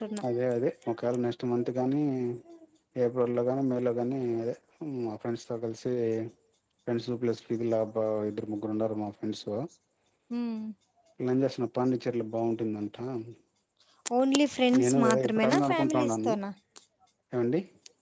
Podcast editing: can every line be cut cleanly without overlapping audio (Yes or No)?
No